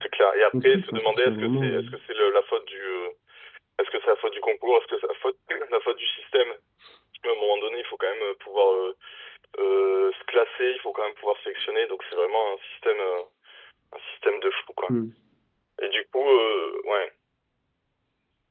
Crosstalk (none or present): present